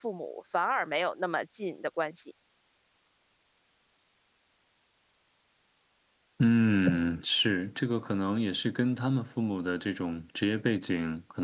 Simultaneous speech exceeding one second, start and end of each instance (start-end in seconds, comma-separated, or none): none